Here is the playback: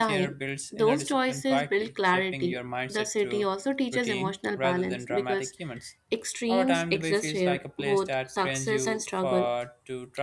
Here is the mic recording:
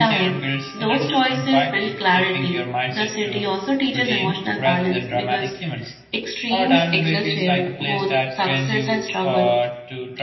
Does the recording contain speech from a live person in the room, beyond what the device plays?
No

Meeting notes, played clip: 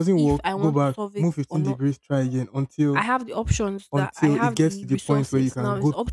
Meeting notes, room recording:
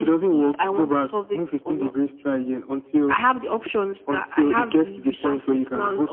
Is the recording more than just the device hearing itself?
No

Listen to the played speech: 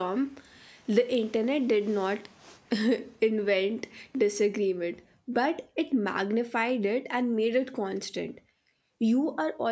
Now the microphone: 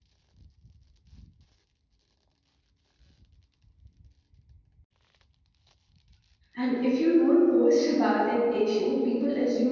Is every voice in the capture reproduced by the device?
No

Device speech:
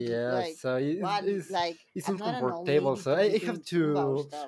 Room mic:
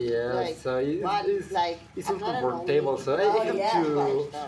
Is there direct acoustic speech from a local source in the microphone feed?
Yes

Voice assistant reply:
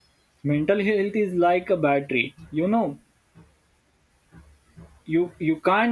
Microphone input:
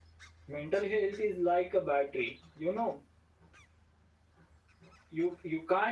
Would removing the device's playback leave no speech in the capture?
Yes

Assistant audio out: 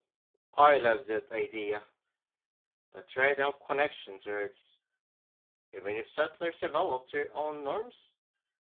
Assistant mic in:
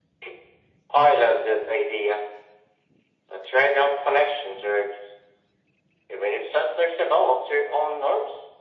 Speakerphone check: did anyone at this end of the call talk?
No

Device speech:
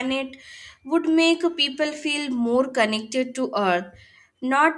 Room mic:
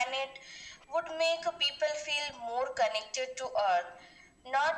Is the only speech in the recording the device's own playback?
Yes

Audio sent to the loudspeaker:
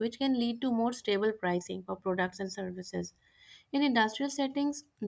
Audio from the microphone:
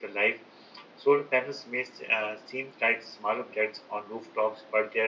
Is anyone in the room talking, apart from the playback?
Yes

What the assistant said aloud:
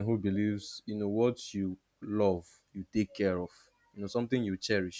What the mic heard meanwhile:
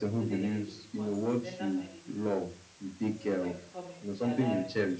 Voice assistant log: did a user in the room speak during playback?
Yes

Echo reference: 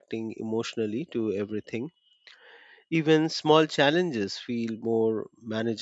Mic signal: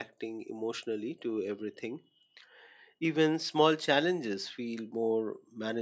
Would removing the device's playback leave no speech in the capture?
Yes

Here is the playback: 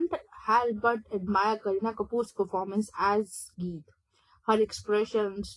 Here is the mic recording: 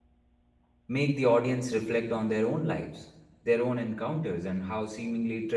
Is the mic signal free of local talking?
No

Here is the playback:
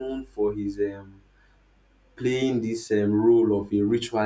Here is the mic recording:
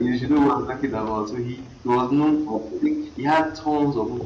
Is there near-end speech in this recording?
Yes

